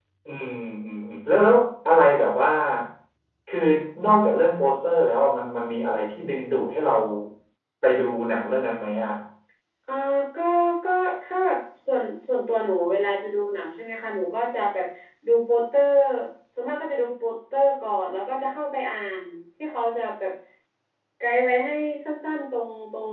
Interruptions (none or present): none